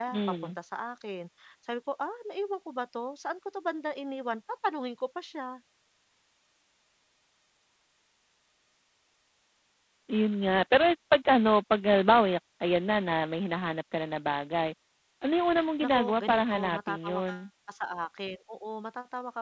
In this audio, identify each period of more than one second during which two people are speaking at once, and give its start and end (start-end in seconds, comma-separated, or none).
15.8-17.4